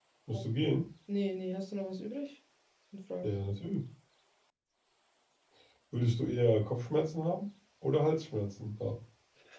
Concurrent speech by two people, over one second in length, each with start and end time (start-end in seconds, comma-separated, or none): none